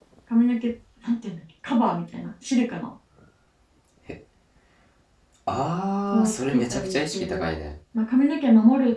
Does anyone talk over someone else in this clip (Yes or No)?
Yes